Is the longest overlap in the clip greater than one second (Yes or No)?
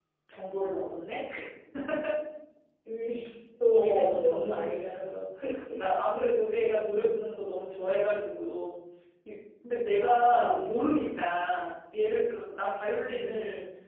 Yes